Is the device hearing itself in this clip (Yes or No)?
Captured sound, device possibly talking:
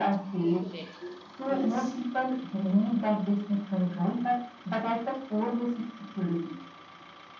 Yes